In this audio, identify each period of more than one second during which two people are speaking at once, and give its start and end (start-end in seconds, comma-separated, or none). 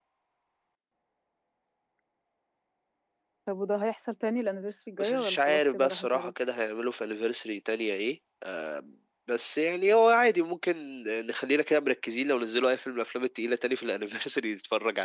5.0-6.3